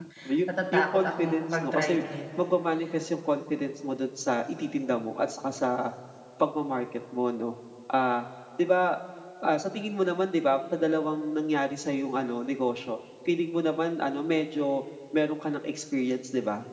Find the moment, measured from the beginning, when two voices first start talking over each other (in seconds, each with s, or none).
0.7 s